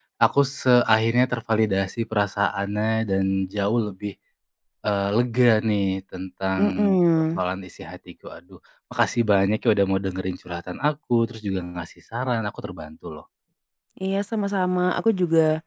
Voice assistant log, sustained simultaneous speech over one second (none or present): none